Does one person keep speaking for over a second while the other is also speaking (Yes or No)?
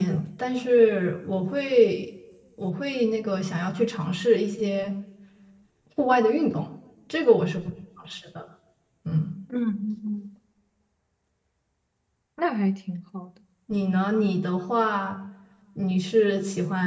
No